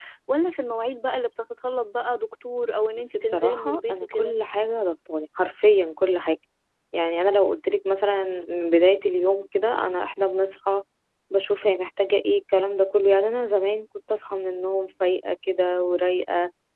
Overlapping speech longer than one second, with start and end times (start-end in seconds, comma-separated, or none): 3.0-4.3